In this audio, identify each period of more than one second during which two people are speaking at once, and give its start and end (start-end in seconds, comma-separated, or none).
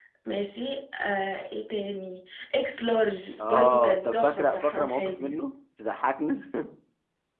3.5-5.4